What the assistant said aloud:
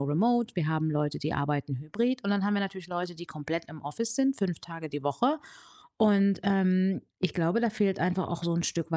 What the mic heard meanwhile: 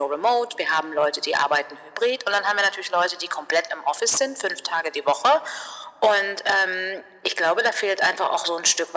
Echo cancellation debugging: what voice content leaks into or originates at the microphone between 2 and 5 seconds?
echo only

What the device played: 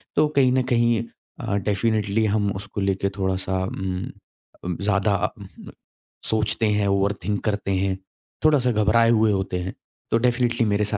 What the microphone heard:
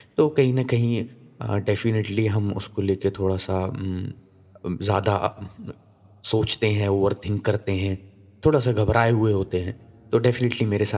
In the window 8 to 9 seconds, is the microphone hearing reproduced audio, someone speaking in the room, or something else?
echo only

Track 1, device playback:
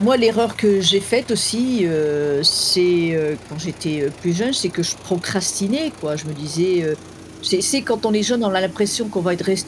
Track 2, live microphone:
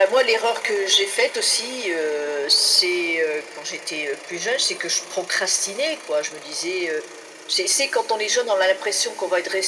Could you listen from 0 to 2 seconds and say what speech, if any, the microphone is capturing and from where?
echo only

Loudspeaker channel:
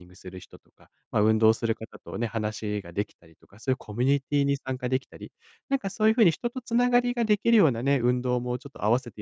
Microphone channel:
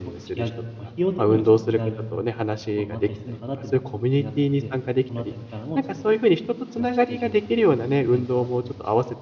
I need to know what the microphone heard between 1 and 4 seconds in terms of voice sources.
both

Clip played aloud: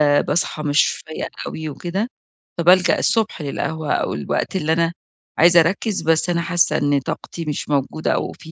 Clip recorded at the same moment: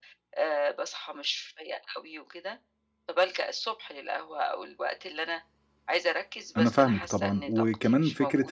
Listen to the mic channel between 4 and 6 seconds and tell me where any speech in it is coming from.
echo only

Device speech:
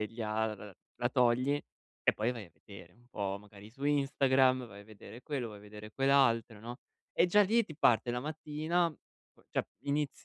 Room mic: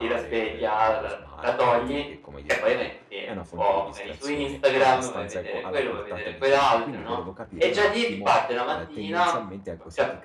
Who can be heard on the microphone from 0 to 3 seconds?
both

